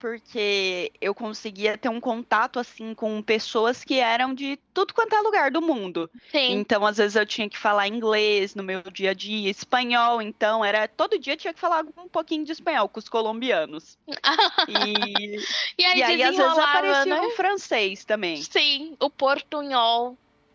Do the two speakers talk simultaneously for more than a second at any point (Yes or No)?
Yes